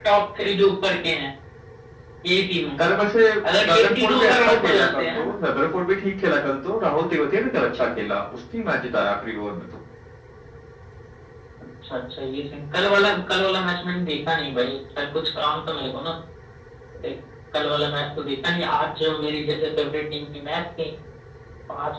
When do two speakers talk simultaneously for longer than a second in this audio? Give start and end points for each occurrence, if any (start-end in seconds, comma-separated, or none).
3.7-5.2